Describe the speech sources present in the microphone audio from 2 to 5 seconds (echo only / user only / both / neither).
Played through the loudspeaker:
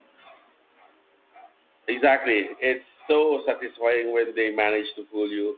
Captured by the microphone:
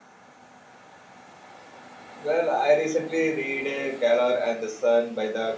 user only